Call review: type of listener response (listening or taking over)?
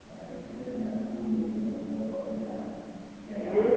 listening